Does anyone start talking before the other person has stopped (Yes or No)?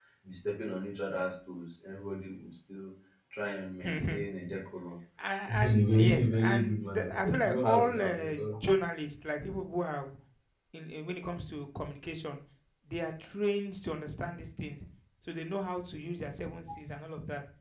Yes